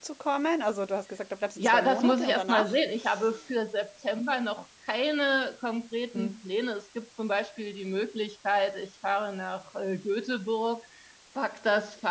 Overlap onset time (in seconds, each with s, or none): 1.6 s